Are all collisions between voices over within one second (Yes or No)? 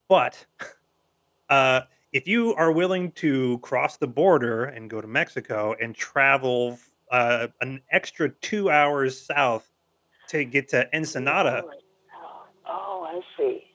Yes